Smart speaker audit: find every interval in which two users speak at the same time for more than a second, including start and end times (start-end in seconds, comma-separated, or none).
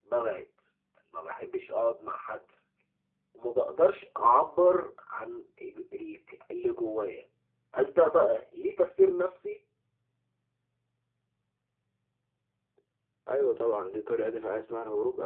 none